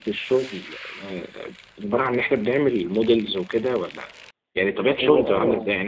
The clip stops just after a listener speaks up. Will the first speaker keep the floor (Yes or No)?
Yes